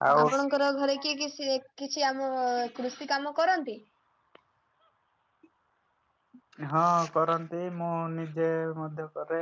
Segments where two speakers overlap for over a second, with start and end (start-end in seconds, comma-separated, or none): none